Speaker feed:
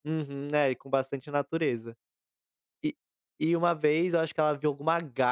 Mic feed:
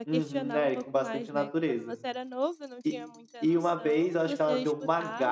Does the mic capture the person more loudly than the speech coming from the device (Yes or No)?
No